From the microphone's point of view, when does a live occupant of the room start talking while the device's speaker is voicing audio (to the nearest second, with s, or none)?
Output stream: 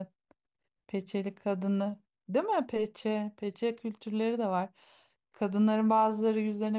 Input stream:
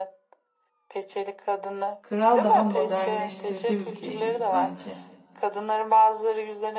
2 s